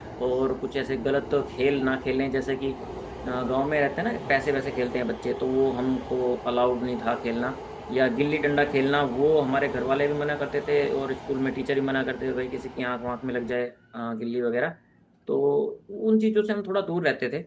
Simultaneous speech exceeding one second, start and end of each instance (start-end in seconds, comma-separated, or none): none